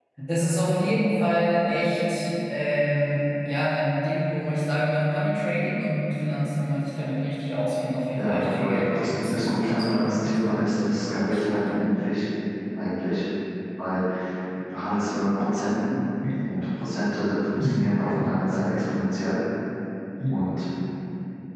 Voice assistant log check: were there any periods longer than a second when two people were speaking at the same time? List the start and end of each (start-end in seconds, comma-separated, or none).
8.2-10.6